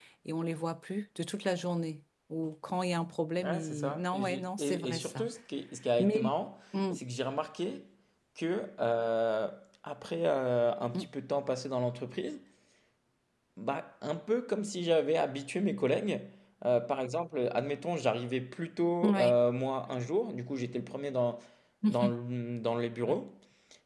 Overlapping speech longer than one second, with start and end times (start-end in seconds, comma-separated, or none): 3.4-5.3